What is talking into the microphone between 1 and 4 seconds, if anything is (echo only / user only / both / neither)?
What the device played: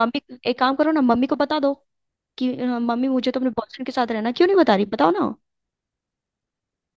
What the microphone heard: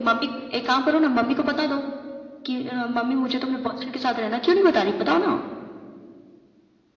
echo only